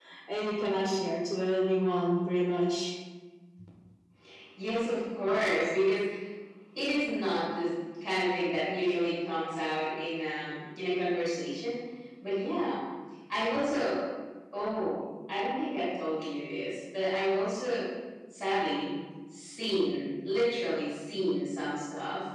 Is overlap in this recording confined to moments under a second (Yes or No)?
Yes